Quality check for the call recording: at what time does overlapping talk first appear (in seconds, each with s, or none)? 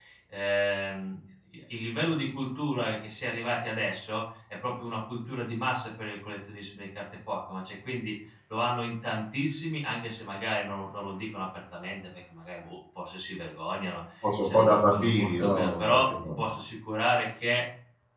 14.2 s